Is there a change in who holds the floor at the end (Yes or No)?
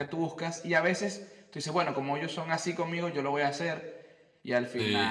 Yes